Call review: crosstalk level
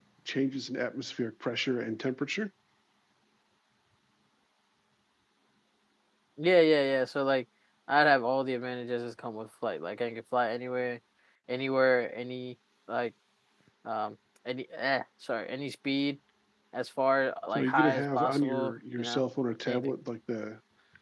present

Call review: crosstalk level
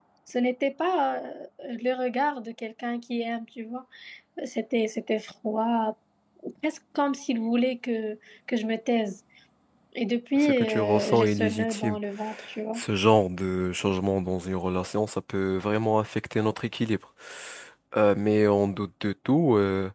present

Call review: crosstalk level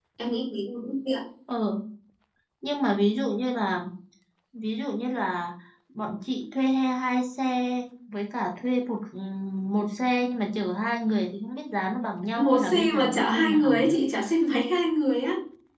present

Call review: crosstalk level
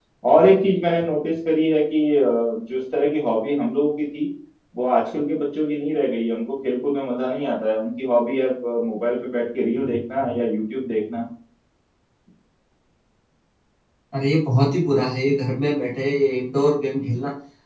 none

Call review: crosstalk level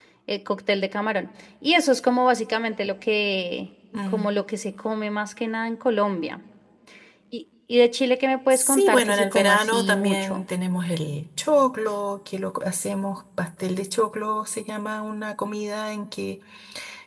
present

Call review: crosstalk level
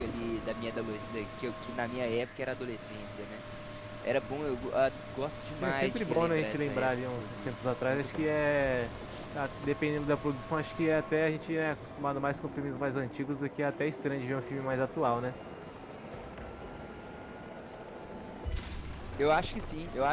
present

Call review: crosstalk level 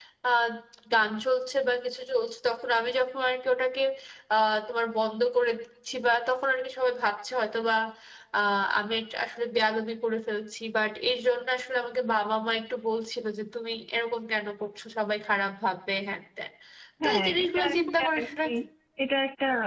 present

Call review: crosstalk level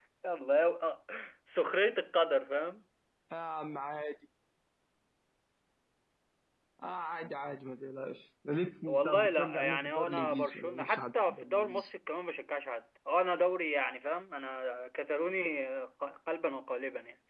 present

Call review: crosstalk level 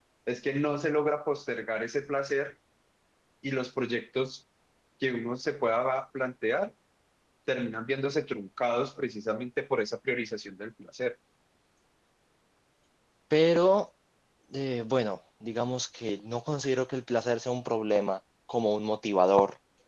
none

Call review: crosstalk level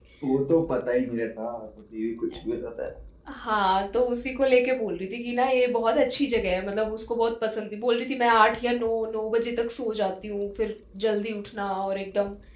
none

